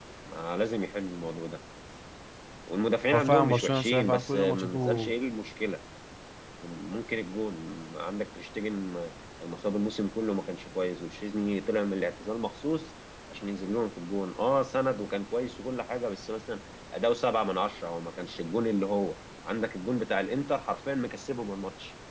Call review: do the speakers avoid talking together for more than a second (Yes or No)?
No